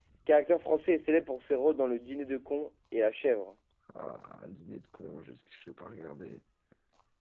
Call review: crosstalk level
none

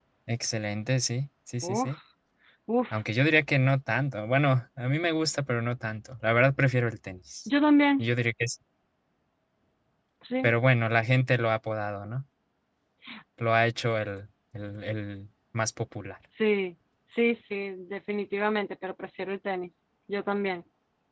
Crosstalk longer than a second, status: none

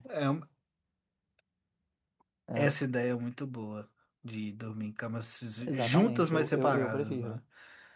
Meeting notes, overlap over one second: present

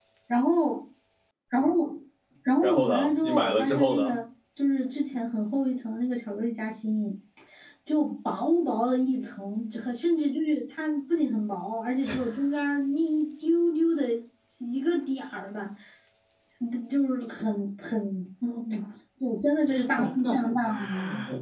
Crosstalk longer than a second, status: present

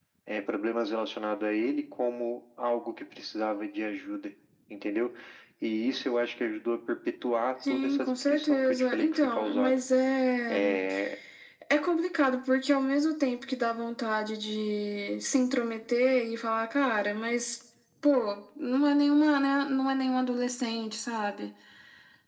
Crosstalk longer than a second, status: present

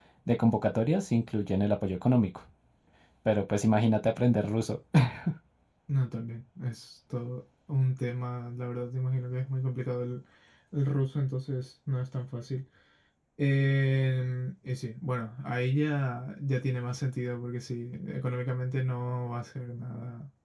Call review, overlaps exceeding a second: none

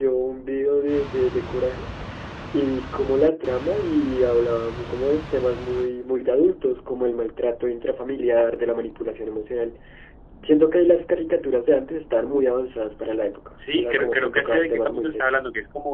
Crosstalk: present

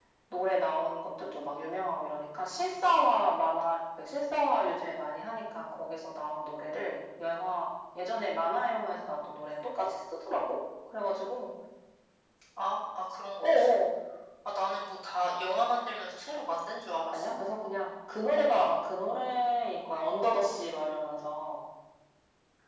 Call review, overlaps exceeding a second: none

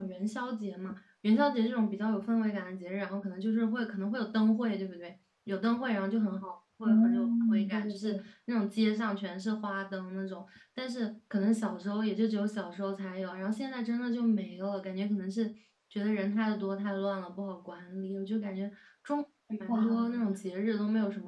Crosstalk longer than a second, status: present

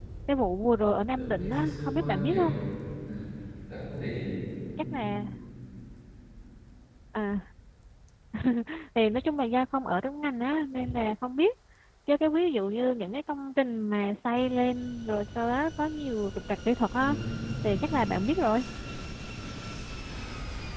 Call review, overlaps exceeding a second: present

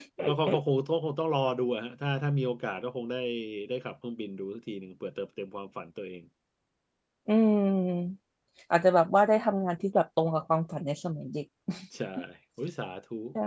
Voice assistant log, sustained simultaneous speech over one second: none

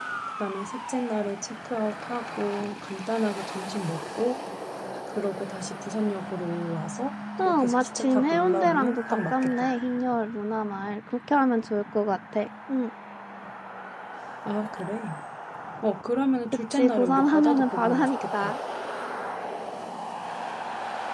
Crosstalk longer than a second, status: present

